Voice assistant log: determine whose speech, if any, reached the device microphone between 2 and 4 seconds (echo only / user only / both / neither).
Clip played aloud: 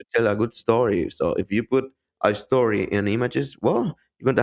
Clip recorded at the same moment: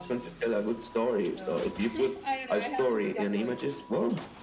both